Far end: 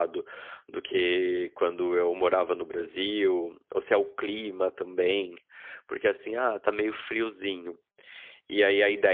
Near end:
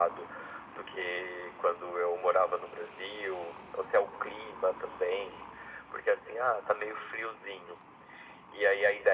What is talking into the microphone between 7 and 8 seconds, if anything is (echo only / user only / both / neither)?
echo only